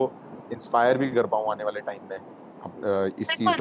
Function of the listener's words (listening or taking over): taking over